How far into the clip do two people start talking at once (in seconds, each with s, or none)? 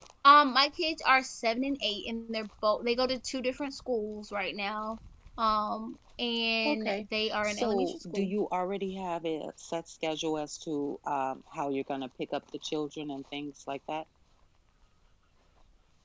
6.7 s